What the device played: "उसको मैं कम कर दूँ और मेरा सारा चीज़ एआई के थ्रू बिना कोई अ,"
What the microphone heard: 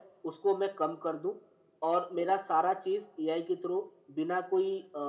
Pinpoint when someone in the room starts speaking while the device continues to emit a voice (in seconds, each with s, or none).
none